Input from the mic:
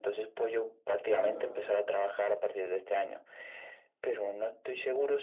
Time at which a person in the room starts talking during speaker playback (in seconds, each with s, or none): 1.0 s